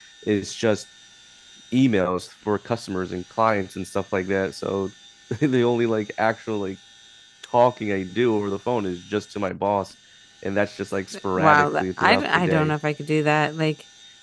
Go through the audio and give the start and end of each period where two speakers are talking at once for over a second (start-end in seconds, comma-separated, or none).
11.4-12.7